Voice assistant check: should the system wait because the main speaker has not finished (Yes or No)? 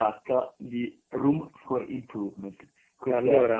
Yes